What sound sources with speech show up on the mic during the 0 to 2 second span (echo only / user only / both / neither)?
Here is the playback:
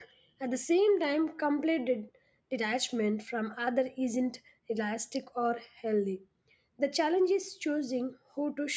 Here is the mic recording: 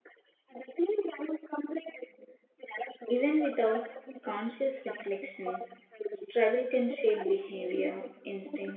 echo only